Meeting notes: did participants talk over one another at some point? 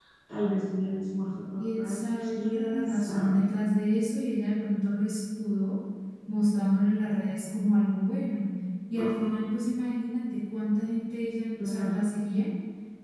Yes, from 1.6 s

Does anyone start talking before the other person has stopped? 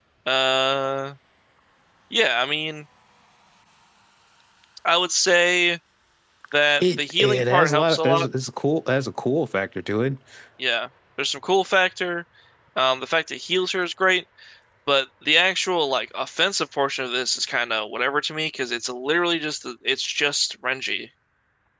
Yes, from 6.8 s

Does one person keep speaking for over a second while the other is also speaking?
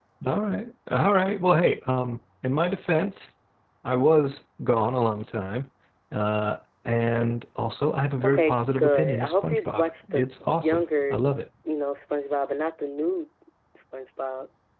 Yes, from 8.2 s

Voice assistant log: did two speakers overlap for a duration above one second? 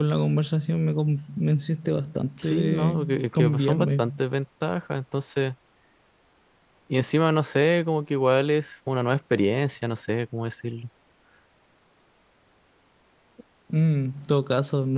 Yes, from 2.4 s

